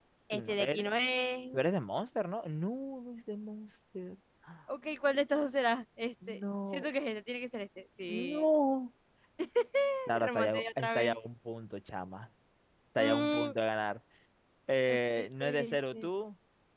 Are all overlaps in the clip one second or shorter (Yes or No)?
No